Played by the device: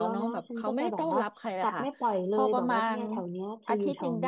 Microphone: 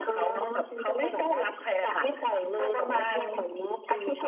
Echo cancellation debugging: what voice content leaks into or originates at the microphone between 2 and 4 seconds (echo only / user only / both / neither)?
echo only